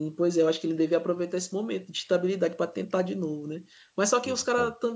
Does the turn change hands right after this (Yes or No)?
No